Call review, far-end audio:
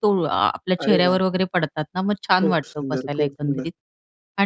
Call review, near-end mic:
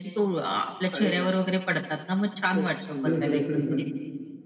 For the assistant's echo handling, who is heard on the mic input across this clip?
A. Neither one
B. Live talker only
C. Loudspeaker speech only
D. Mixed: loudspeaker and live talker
D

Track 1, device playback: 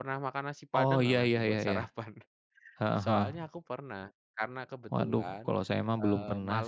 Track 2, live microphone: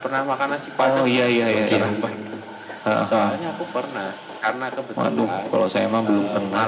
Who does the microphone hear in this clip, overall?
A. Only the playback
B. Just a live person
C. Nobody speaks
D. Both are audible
D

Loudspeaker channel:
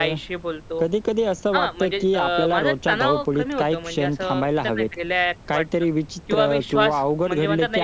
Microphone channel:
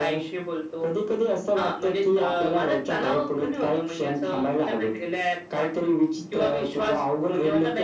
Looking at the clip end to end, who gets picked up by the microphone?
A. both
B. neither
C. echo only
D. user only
C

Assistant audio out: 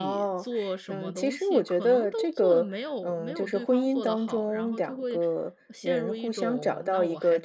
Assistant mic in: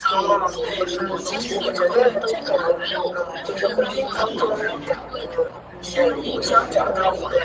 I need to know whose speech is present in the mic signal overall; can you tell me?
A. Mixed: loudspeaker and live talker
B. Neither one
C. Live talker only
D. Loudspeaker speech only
A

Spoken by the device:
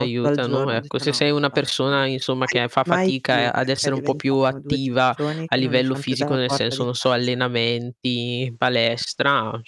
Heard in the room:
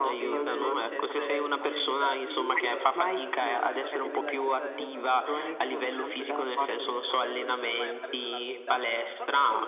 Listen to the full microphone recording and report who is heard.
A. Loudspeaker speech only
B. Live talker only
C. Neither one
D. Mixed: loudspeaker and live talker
D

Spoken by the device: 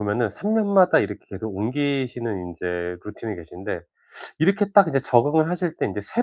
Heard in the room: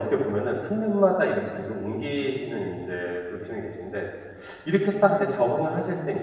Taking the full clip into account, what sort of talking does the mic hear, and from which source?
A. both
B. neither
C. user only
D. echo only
D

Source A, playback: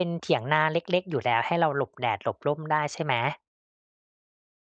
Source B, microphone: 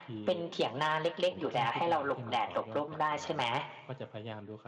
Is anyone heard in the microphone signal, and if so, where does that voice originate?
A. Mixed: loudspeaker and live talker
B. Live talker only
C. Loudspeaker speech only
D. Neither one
A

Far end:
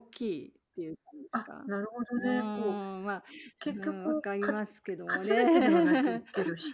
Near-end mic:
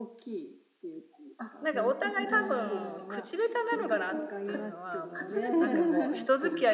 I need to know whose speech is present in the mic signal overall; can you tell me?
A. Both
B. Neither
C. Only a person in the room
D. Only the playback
A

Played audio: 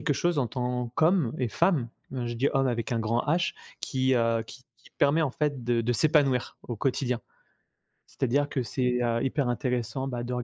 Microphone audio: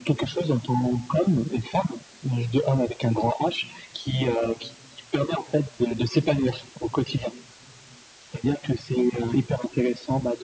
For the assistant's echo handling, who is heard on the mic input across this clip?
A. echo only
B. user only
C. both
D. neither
A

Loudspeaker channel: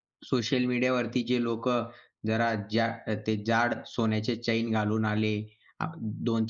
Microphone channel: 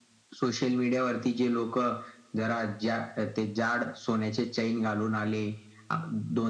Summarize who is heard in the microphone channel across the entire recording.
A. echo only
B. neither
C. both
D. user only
A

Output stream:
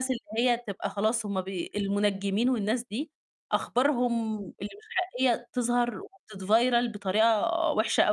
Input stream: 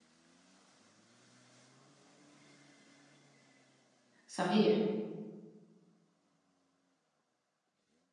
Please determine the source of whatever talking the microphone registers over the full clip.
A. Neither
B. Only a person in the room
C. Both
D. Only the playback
B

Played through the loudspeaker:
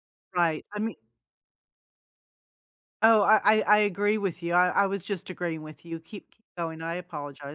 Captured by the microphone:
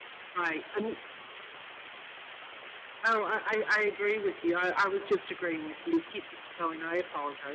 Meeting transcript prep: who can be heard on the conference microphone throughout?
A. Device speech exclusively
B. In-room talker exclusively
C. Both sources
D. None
A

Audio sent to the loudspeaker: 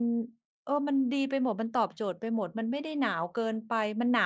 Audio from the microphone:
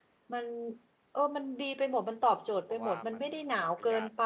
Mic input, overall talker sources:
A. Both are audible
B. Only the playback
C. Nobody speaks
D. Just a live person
A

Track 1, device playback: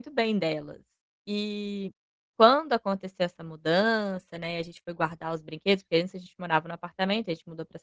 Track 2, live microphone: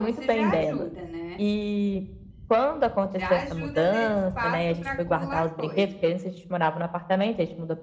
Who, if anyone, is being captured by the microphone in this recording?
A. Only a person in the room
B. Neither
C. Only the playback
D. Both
D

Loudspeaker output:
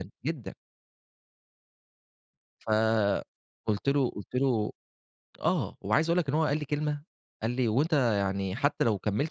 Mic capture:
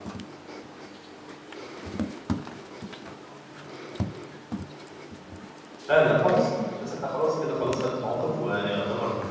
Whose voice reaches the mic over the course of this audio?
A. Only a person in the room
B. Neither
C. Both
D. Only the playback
A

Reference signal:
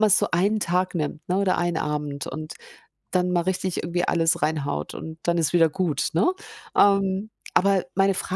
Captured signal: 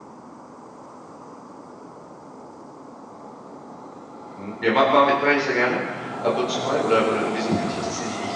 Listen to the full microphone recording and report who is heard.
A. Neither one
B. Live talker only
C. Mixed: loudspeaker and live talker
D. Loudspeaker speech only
B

